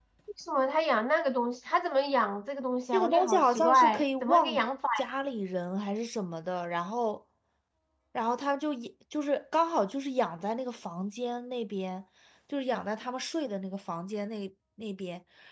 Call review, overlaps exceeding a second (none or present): present